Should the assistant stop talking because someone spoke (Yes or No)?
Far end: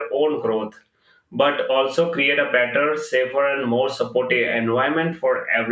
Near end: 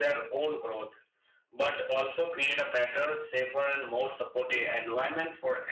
No